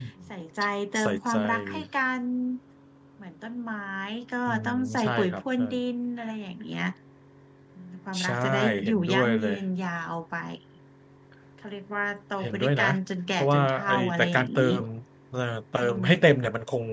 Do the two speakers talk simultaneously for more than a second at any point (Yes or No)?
Yes